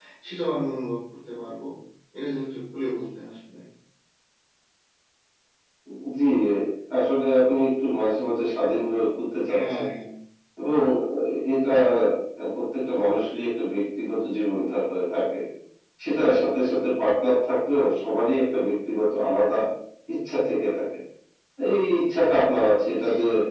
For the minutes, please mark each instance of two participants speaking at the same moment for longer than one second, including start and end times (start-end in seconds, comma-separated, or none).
none